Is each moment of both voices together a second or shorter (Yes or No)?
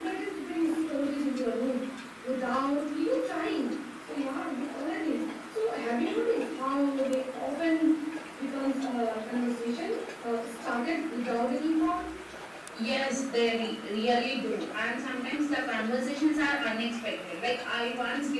Yes